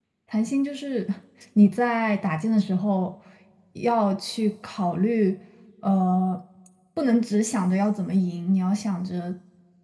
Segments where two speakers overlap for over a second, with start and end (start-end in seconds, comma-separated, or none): none